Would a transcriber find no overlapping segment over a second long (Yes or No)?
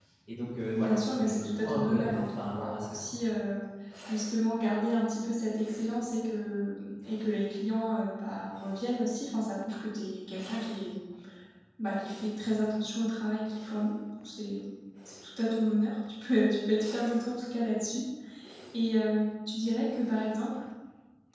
No